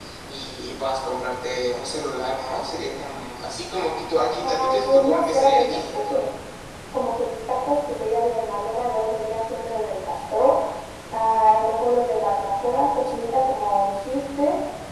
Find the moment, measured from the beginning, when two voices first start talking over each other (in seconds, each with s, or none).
4.4 s